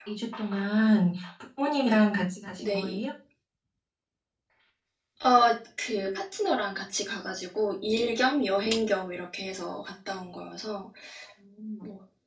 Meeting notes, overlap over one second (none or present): none